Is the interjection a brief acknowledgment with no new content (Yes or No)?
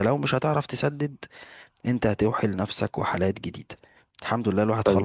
No